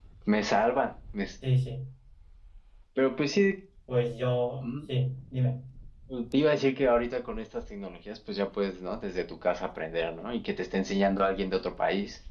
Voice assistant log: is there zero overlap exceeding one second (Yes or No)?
Yes